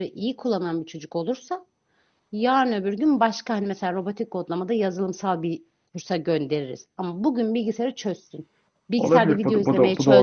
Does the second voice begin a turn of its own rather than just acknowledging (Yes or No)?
Yes